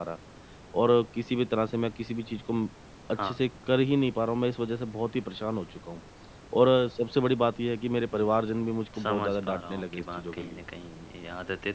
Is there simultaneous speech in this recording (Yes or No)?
Yes